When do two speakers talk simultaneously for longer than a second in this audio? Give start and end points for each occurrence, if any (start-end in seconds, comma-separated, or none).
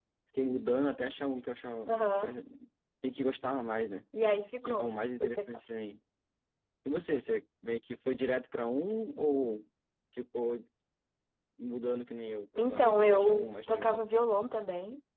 12.6-14.0